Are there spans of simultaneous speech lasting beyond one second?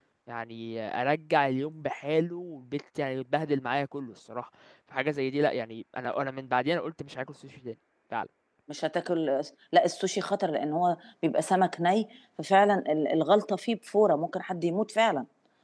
No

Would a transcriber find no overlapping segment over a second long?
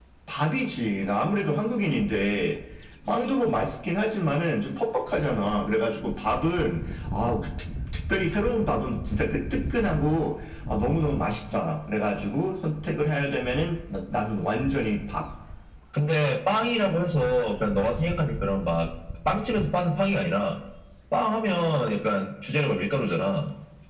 Yes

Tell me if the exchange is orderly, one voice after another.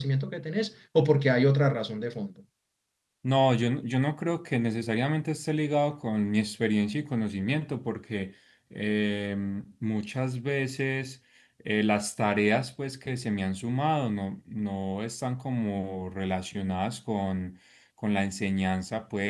Yes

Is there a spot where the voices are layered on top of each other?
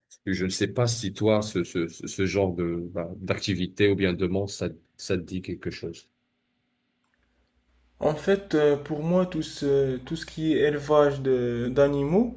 No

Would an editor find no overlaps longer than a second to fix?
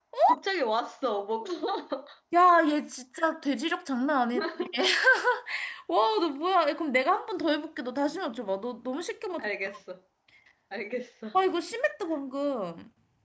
Yes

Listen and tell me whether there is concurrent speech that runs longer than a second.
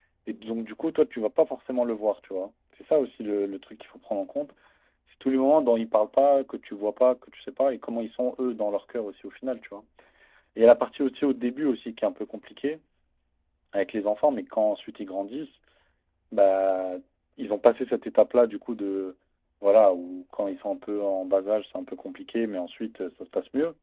No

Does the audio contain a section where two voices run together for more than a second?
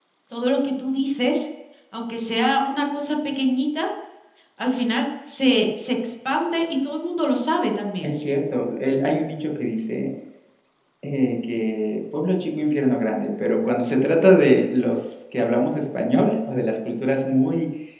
No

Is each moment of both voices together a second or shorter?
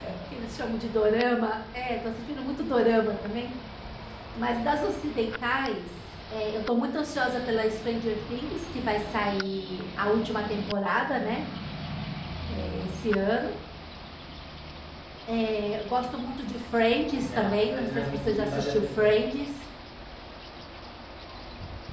No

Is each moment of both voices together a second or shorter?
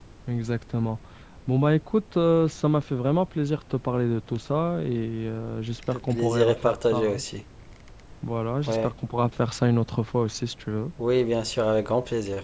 No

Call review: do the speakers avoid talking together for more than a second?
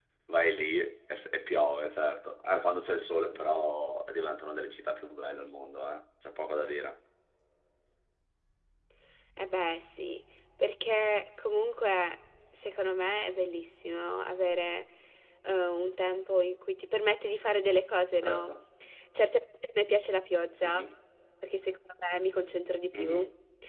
Yes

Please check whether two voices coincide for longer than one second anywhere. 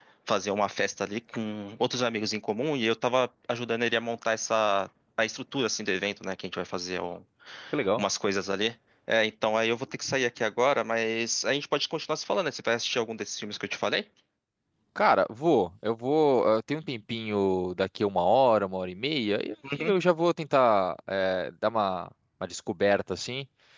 No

